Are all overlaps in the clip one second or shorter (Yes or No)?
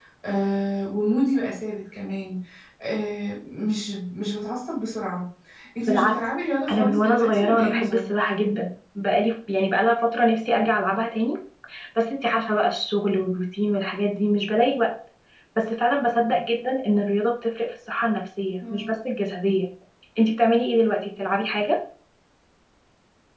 No